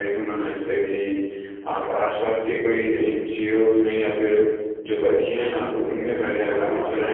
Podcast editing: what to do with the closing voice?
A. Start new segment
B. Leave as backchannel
B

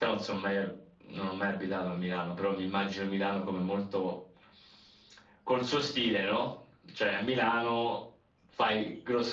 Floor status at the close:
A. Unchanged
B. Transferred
A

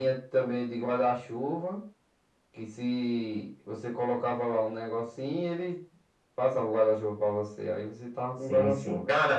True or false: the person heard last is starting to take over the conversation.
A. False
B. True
B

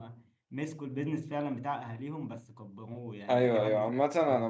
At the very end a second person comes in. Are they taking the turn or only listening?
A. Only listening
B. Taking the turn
B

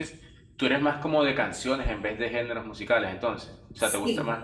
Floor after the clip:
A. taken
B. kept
A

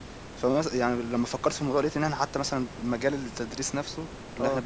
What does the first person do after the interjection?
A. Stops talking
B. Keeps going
B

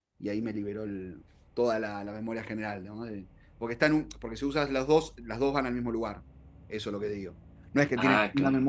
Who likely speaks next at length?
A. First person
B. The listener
A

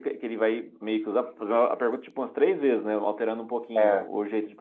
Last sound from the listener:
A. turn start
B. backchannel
B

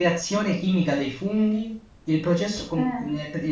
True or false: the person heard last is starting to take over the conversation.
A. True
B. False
B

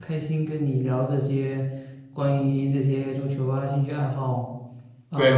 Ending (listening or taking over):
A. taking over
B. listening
A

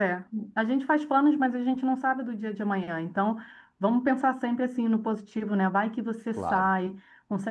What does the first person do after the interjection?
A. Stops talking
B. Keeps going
B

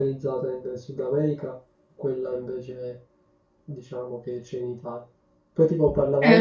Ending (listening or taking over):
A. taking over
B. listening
A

